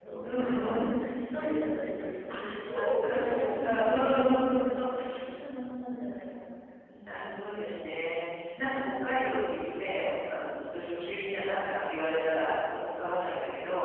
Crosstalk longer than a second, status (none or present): present